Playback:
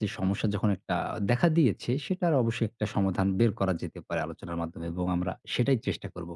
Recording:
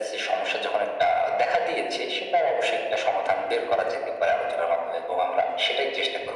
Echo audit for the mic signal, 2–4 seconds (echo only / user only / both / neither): echo only